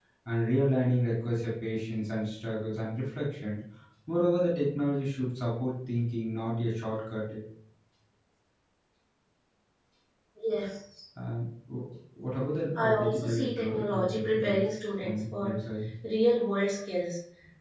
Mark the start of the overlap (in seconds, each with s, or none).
12.8 s